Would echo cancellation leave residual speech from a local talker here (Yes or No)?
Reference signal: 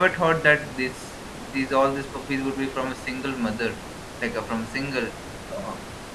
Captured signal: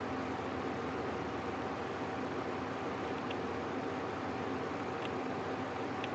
No